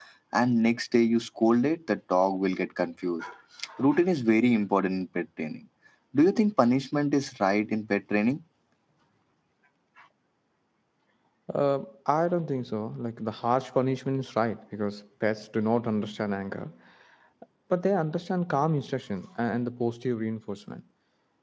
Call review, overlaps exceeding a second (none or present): none